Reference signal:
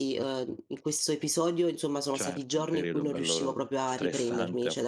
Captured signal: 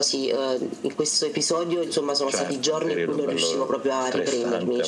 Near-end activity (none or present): none